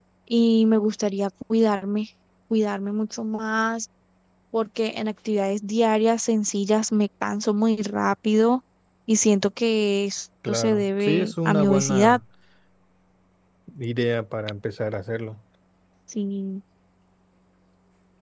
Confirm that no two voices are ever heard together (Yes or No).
No